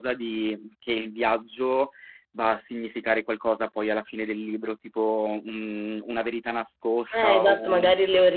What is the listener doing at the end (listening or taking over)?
taking over